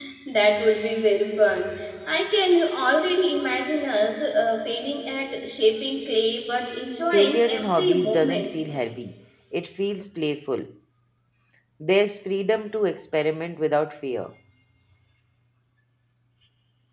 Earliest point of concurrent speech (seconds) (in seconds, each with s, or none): 7.1 s